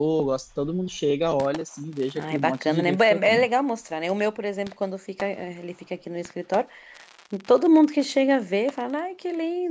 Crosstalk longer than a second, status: present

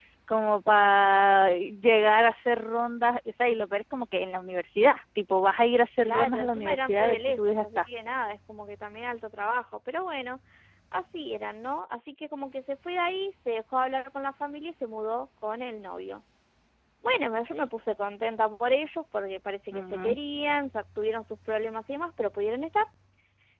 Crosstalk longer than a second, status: present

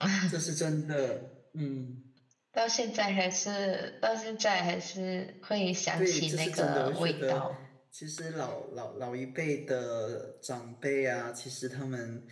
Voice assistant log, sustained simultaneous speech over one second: present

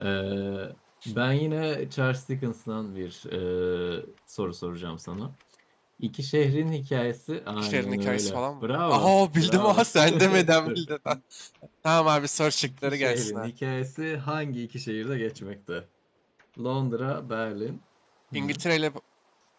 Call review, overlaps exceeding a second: present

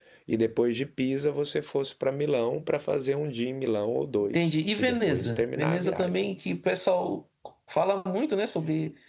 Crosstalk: present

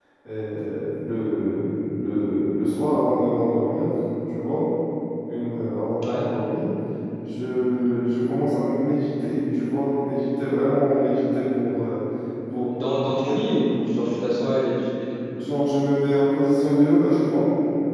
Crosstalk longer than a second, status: none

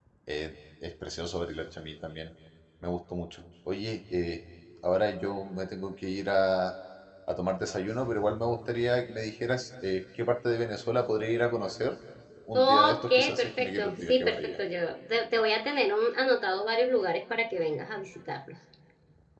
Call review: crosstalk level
present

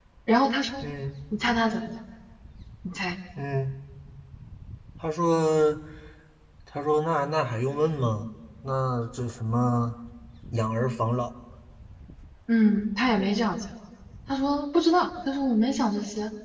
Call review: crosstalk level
none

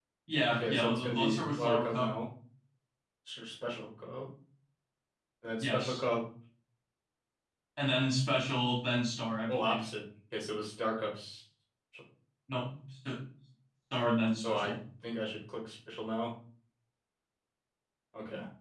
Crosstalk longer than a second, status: present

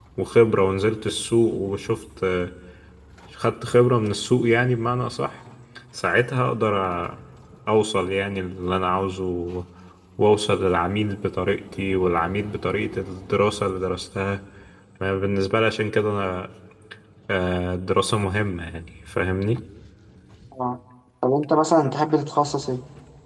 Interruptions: none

